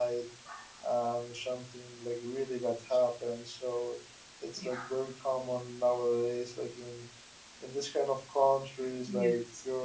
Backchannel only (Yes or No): Yes